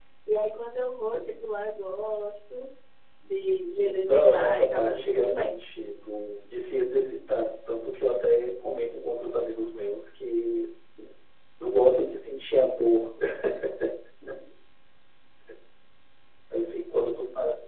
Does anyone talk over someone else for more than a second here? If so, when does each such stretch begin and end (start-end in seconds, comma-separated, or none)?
3.6-5.6